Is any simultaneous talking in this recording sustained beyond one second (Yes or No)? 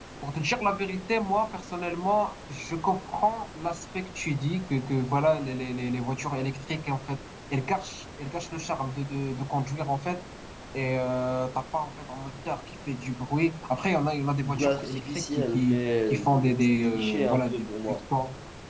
Yes